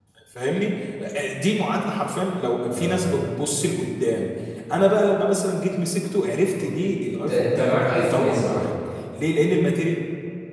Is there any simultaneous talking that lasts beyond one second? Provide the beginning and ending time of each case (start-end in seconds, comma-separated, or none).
7.3-8.7